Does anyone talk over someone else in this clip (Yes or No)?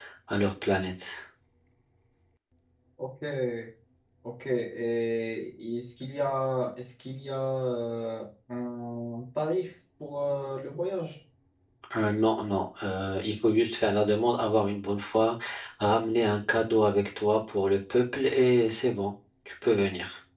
No